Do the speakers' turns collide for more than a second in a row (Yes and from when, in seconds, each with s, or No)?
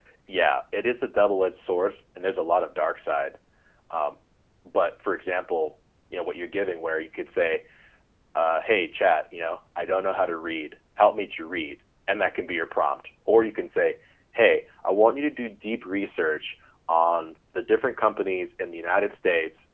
No